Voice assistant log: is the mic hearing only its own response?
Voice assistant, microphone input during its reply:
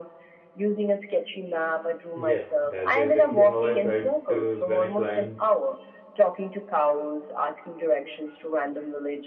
No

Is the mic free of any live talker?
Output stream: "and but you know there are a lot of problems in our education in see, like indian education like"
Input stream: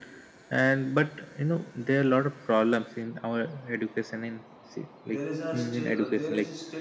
No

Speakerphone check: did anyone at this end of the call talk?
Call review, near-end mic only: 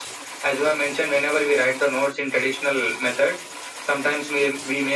No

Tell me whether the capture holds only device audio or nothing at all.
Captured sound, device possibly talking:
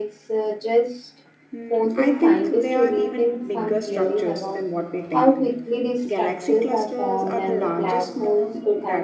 No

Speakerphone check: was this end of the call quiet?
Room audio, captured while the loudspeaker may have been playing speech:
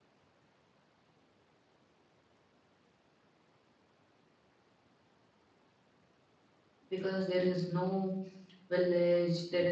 No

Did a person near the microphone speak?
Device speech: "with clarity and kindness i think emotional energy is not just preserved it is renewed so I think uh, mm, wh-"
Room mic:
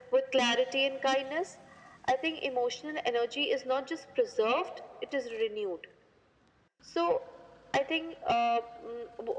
No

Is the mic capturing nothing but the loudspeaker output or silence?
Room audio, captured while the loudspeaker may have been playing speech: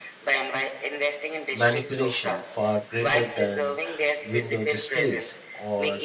No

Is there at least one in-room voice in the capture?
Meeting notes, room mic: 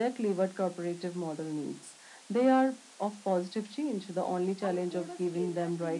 Yes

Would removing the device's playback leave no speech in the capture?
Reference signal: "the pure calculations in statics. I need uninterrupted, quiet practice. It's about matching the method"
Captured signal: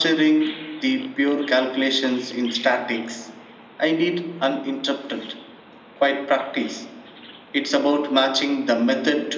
Yes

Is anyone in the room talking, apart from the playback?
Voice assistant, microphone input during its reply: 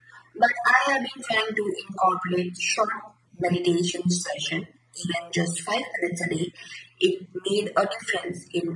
No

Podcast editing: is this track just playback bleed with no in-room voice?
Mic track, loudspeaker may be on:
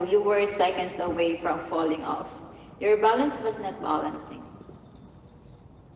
Yes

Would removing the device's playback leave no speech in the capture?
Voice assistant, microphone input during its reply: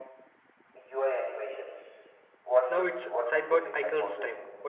No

